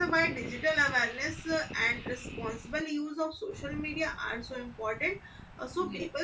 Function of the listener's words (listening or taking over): listening